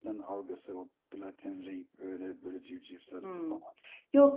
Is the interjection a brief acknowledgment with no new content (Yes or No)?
No